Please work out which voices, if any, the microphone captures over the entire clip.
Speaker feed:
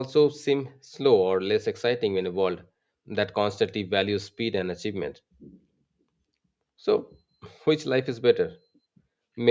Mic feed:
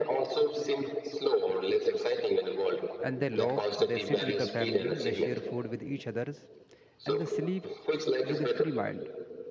both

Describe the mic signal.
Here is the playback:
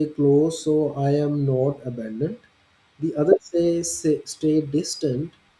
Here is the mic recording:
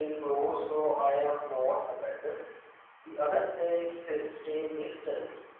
echo only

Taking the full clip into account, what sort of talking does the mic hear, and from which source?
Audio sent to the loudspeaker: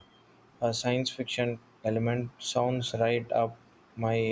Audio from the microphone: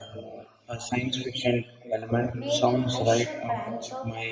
both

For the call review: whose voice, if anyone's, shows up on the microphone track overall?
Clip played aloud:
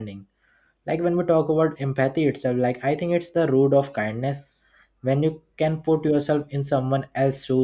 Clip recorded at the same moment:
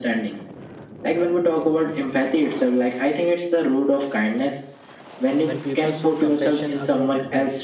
both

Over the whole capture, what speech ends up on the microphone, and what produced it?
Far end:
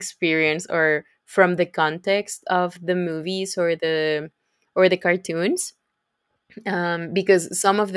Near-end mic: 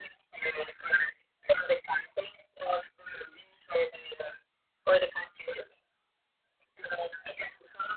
echo only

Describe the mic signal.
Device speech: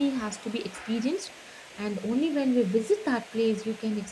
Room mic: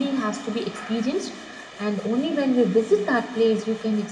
echo only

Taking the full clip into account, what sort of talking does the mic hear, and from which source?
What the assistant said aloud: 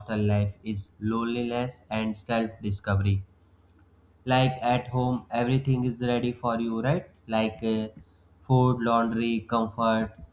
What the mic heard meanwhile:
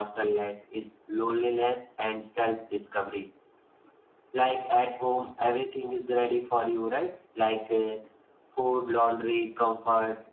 echo only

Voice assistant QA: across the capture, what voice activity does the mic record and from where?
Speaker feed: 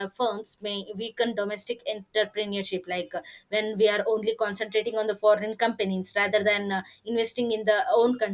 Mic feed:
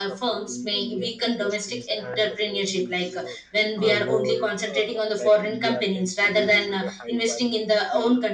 both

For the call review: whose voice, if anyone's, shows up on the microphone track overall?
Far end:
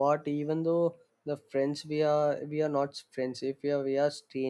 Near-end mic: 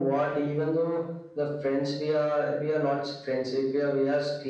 echo only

